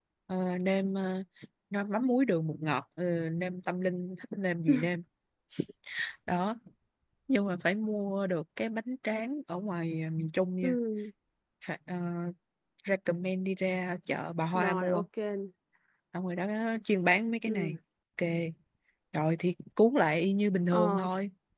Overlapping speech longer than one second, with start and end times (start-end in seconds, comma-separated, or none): none